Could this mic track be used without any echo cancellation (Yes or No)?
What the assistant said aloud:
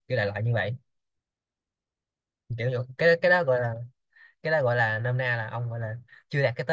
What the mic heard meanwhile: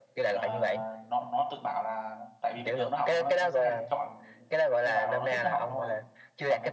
No